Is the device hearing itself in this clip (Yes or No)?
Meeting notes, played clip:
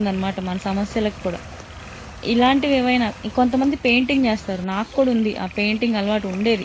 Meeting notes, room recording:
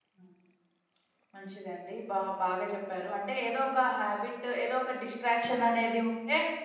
No